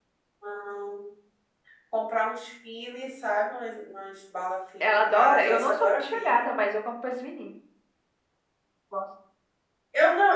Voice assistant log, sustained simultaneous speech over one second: present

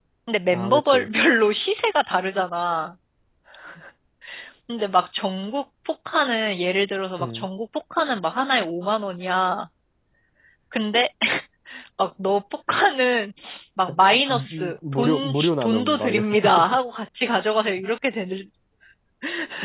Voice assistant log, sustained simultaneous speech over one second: present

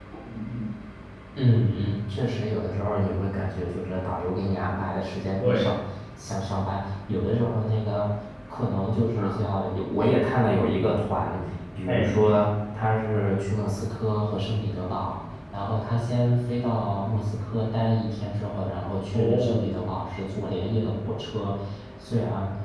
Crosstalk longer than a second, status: none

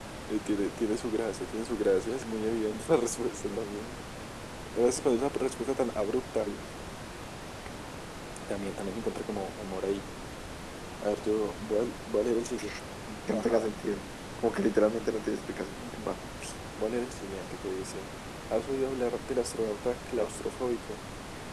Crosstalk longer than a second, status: none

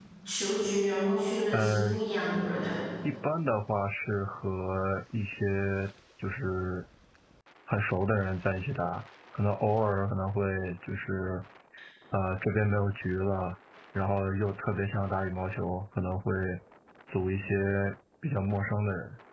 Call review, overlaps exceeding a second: none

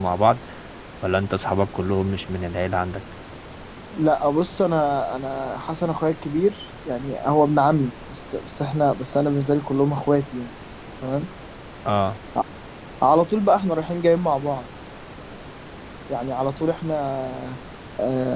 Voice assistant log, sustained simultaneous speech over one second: none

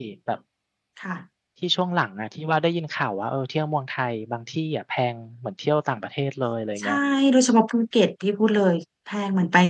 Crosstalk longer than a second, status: none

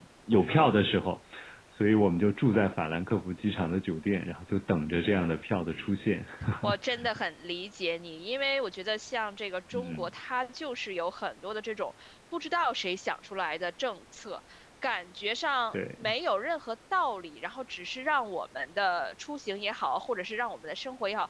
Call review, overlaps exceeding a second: none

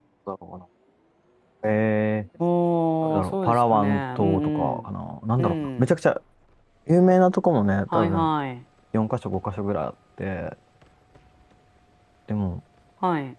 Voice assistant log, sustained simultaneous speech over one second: present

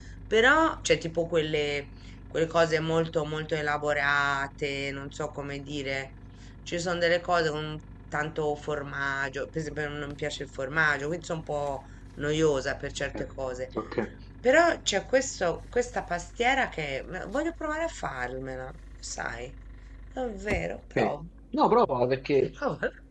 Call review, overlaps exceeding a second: none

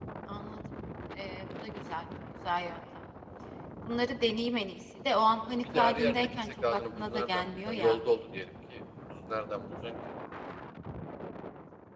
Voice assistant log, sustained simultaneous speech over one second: present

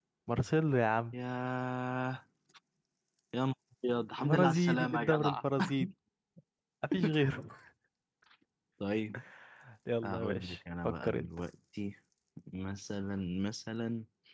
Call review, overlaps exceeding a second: present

